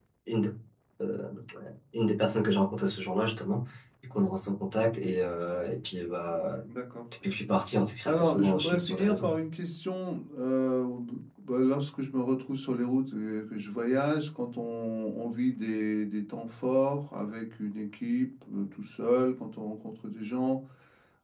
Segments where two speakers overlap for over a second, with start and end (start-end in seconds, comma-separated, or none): 8.1-9.3